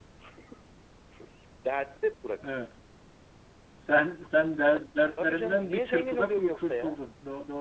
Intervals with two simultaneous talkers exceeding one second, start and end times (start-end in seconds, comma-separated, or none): 5.2-7.0